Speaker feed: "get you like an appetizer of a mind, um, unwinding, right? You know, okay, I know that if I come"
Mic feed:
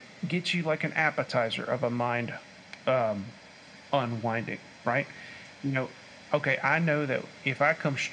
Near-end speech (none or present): none